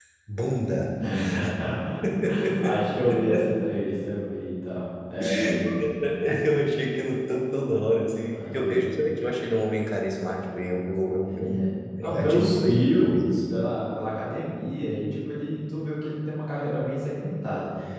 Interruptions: present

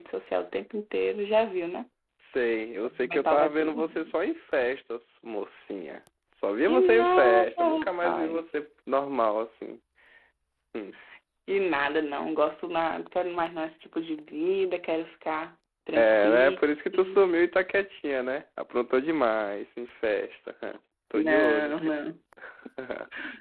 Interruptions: present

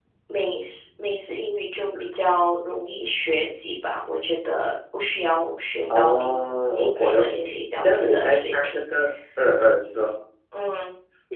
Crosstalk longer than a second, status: present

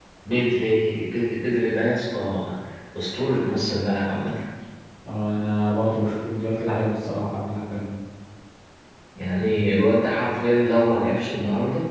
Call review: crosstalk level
none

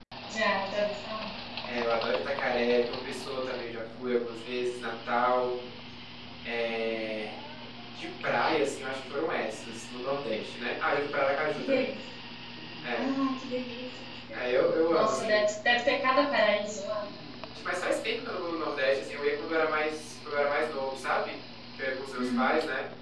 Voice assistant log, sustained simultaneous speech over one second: none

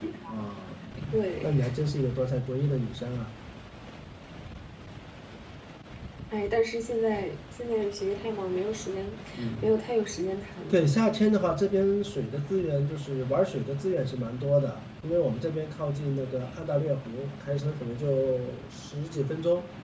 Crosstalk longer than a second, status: none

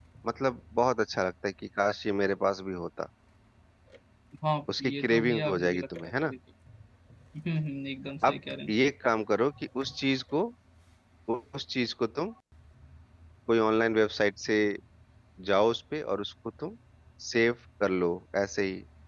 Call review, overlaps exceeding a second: present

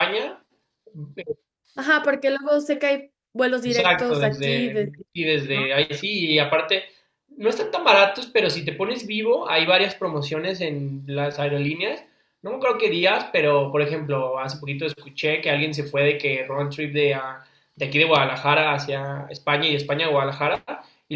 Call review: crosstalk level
present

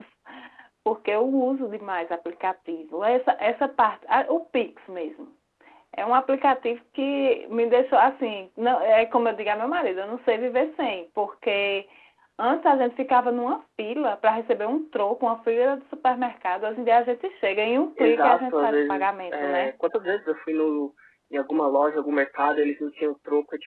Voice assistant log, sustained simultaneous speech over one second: present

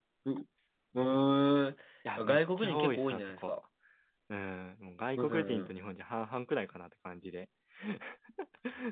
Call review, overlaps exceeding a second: present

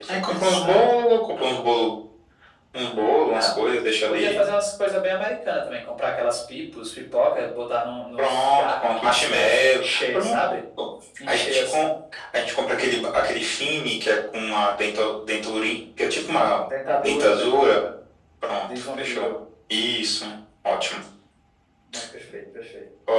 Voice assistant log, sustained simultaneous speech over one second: present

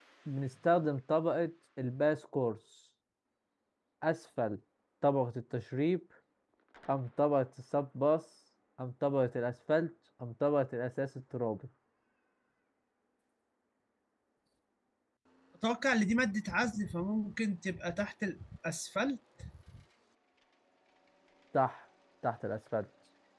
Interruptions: none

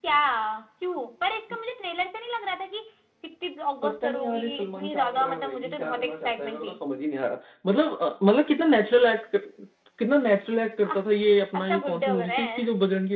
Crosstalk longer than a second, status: present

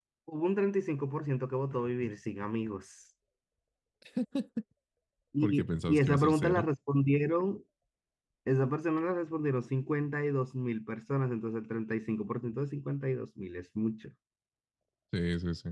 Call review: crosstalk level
present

